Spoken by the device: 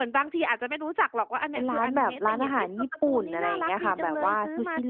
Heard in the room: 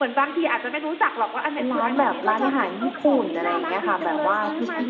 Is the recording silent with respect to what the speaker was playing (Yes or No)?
No